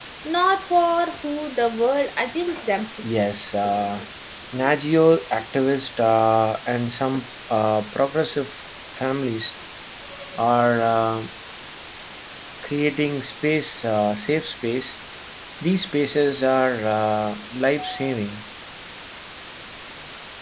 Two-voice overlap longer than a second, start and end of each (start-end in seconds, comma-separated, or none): none